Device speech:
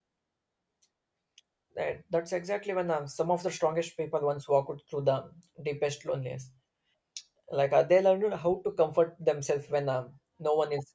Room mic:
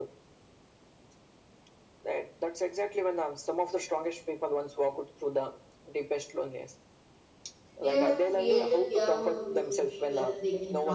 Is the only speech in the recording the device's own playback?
No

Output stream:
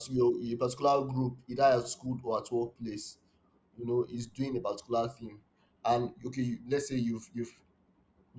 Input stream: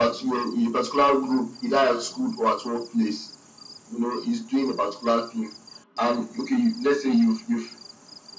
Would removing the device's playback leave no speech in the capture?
Yes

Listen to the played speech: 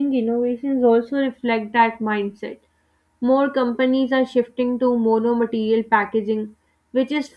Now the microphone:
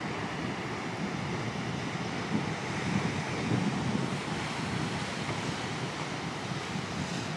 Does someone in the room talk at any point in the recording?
No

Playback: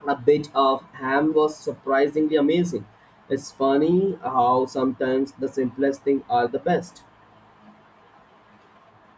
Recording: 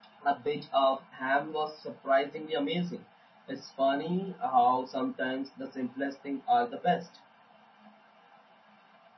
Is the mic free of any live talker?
Yes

